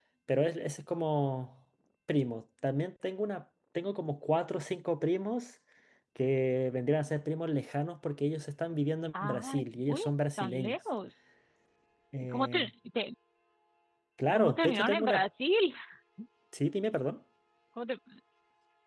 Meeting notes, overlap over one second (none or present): present